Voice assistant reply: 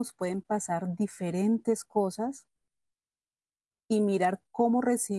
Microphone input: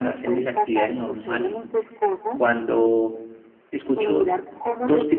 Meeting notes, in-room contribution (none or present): present